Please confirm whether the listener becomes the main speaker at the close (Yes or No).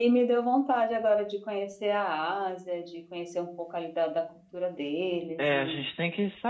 Yes